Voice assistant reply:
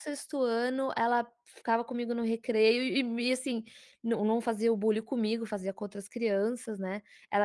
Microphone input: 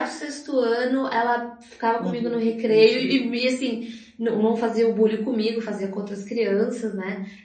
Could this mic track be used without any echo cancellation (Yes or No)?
No